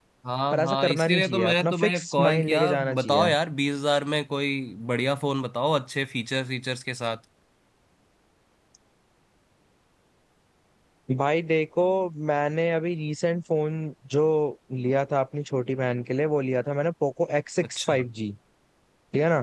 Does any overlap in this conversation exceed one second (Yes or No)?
Yes